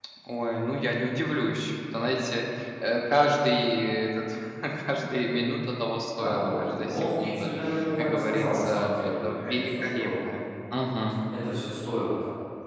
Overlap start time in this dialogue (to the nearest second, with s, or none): 6 s